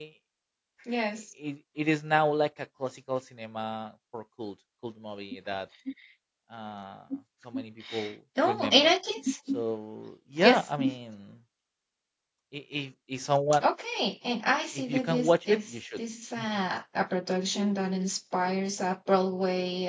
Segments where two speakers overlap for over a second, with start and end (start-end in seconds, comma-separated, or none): 14.8-16.0